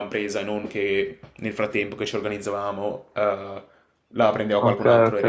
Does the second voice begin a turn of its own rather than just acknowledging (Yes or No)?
Yes